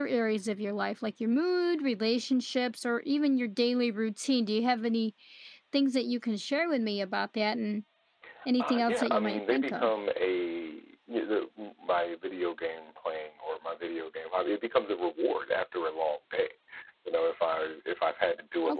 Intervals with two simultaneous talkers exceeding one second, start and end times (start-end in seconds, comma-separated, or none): 8.6-9.9